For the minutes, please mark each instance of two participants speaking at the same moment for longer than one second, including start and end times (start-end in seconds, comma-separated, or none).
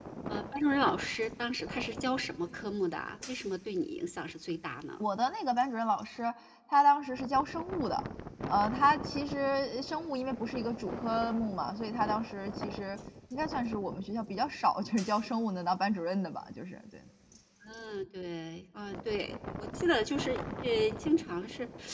none